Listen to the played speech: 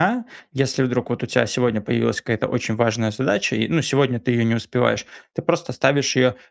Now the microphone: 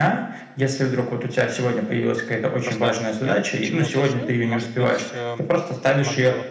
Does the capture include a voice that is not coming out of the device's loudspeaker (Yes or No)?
Yes